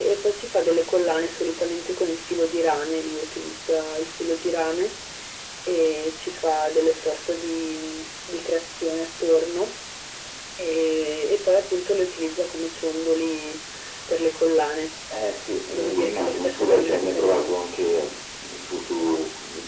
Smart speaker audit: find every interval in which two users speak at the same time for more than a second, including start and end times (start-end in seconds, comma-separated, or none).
15.7-17.6